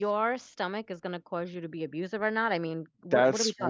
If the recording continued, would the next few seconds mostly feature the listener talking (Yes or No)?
Yes